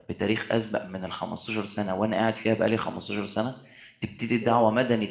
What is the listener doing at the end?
listening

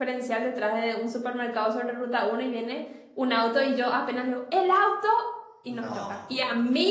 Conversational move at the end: listening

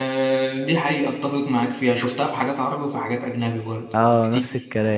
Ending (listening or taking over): taking over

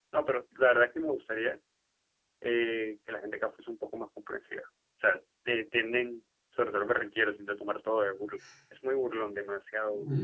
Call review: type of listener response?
taking over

